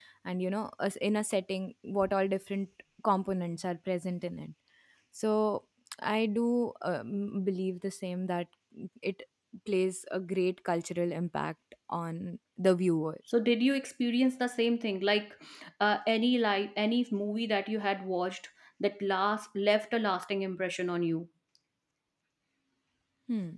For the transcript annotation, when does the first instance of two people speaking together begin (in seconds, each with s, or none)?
none